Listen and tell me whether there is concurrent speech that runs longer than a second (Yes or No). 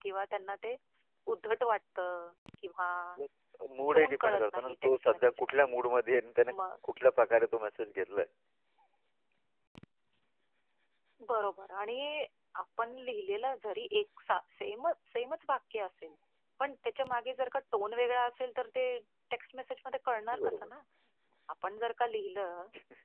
Yes